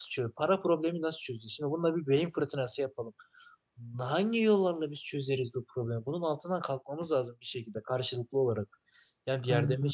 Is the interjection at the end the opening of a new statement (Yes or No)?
No